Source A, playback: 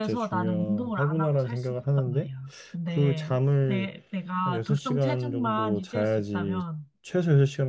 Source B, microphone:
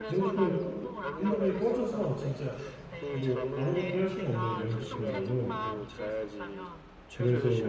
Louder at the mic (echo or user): user